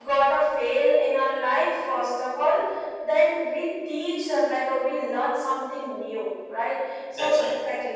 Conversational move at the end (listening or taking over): listening